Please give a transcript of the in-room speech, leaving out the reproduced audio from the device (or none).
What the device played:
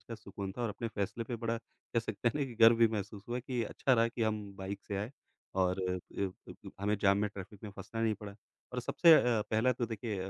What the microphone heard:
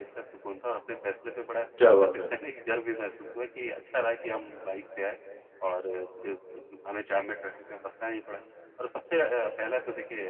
क्या बात है!